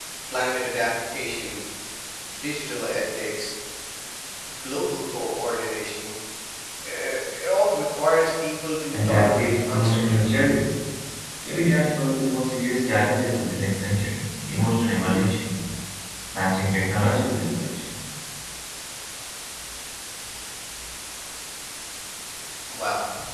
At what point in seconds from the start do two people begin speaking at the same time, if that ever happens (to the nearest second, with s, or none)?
9 s